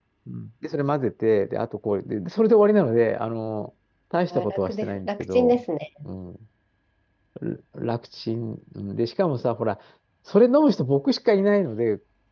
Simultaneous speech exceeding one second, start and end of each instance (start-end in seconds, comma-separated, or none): 4.3-5.6